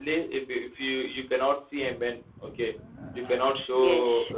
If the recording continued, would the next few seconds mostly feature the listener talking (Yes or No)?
Yes